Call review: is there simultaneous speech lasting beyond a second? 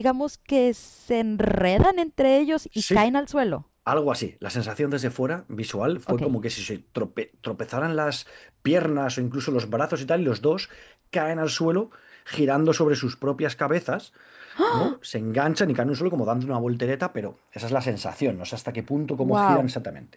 No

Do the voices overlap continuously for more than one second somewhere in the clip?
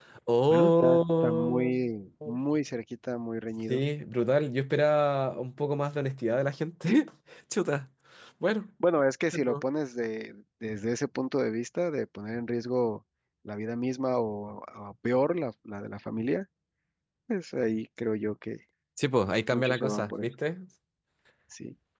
Yes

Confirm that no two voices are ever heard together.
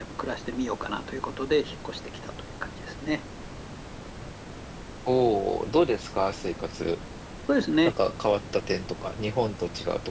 Yes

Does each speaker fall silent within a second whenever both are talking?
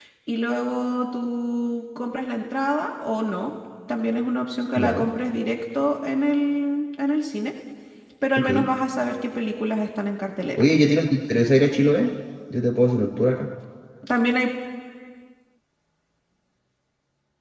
Yes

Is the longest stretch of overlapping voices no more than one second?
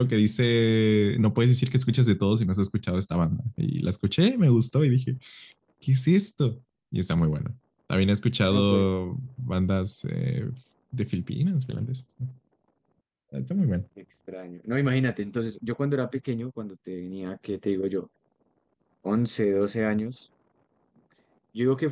Yes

